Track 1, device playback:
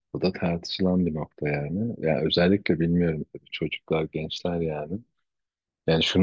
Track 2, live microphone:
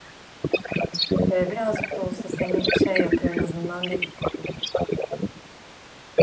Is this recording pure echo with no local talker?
No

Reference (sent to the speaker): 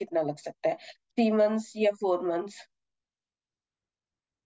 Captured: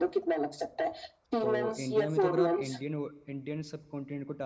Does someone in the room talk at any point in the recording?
Yes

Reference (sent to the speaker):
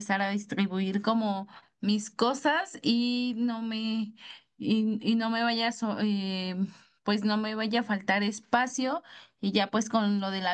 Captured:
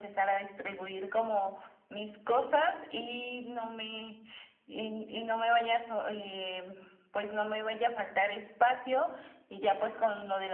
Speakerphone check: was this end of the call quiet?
Yes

